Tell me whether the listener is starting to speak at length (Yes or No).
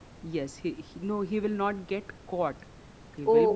No